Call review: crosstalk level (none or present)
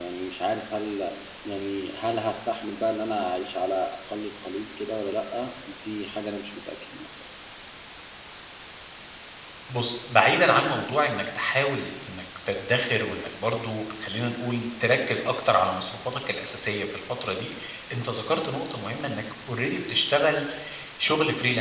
none